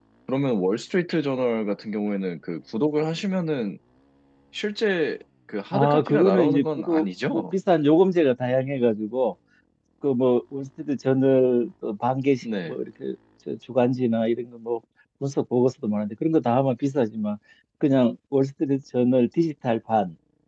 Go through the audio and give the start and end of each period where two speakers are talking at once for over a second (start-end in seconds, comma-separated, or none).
5.7-7.4